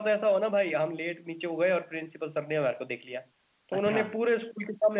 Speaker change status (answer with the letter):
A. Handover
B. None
B